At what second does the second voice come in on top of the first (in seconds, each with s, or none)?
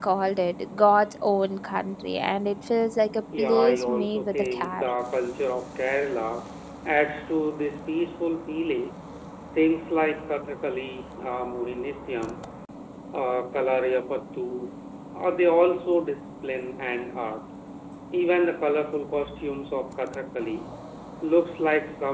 3.3 s